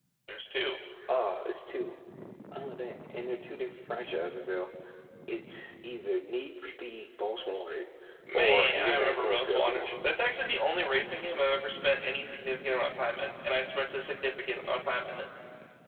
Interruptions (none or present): present